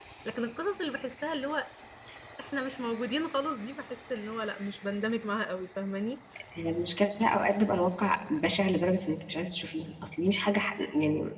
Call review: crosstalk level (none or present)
none